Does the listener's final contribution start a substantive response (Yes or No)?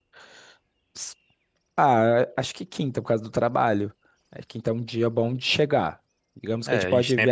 Yes